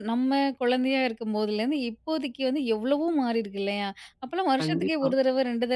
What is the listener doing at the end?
listening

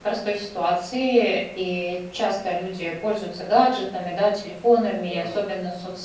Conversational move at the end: listening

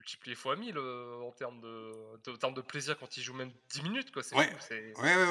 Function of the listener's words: taking over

